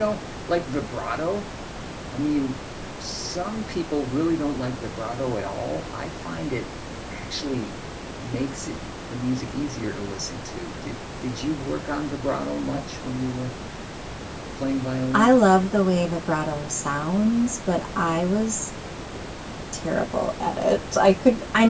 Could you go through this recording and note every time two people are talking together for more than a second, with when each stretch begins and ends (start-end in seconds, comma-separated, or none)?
none